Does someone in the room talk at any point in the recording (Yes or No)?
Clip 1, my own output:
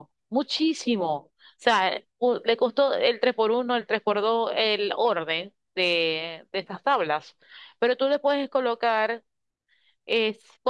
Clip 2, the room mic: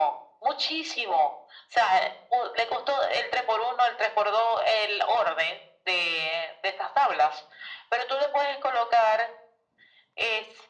No